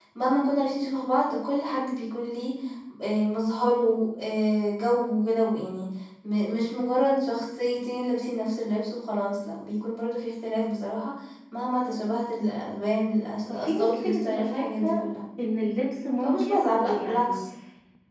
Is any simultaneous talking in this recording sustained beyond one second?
Yes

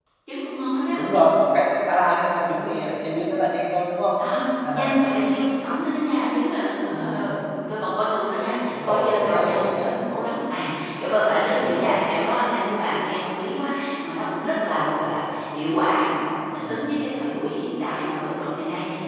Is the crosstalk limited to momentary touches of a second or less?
No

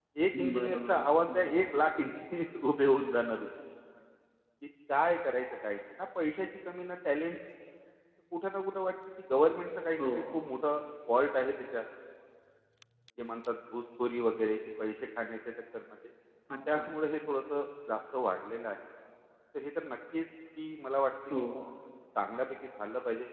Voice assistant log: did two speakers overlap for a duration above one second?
Yes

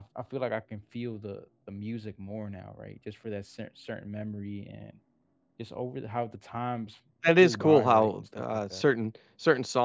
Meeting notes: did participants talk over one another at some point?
Yes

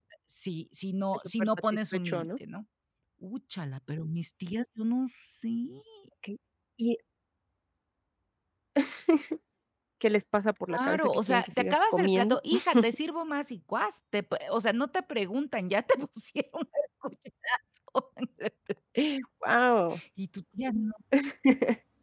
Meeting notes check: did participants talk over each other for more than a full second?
Yes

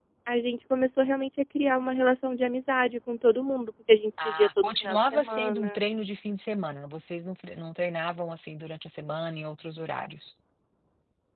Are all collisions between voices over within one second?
No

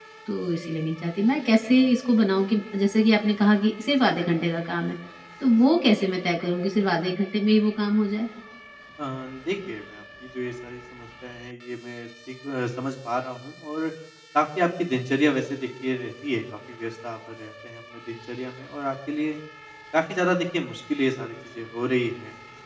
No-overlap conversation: Yes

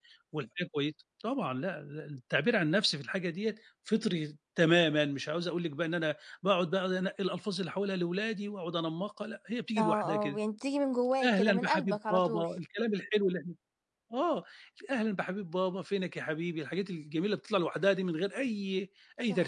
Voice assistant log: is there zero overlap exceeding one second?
No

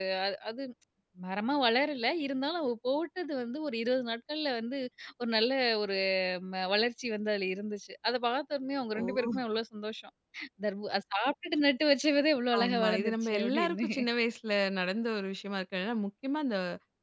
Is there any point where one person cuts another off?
Yes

